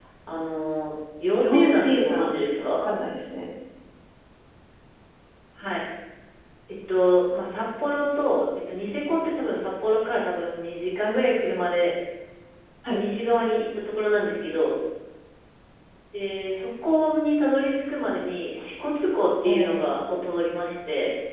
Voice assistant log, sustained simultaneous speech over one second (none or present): present